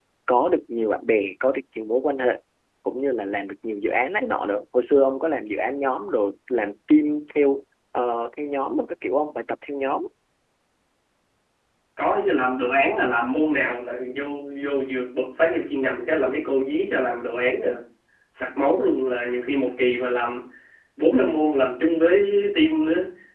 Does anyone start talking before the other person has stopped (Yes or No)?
No